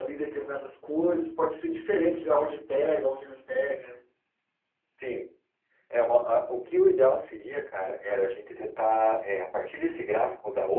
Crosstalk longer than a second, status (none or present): none